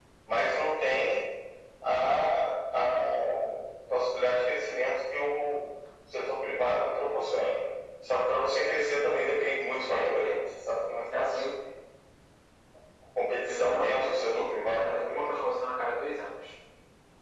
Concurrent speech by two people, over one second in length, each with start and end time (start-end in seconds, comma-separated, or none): 13.4-15.4